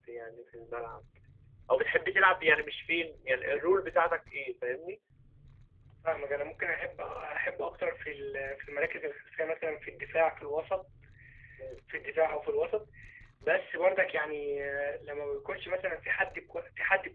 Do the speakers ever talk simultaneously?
No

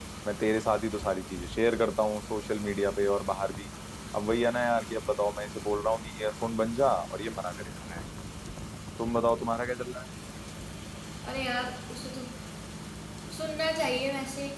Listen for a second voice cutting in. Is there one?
No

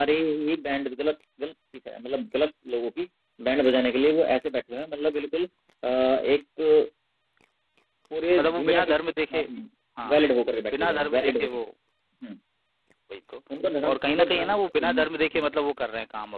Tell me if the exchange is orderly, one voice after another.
No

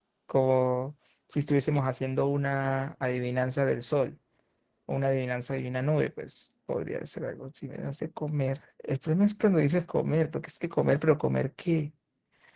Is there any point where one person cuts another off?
No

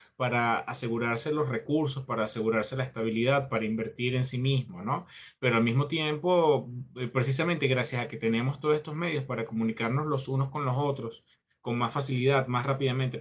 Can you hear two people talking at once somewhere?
No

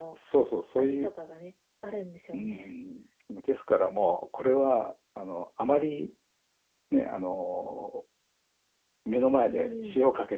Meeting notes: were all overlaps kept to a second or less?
Yes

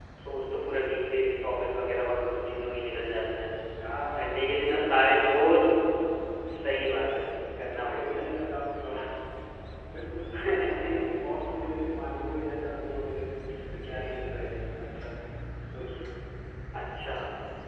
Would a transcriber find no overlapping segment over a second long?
No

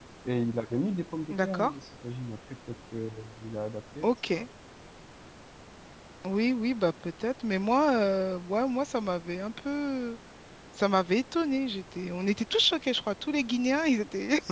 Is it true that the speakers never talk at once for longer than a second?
Yes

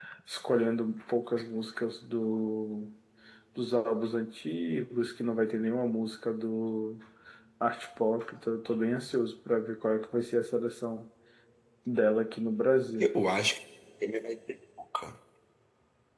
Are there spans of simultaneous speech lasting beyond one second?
No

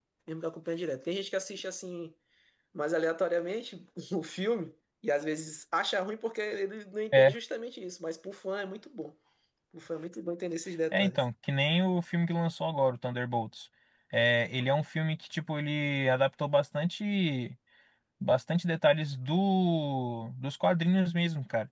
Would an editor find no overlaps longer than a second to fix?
Yes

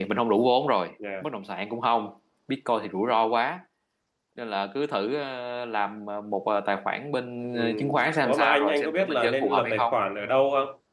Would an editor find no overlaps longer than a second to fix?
No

